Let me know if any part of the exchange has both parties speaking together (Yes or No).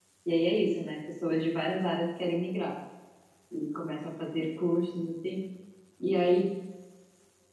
No